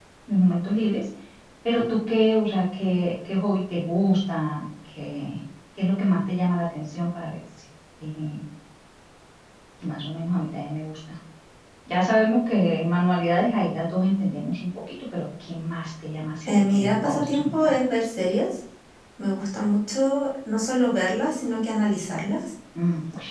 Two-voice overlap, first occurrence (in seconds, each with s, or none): 16.4 s